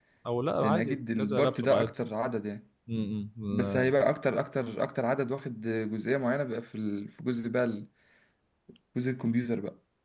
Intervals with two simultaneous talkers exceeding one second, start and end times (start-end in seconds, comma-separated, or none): 0.6-1.9